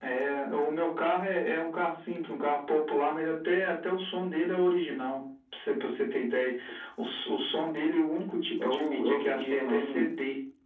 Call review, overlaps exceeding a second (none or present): present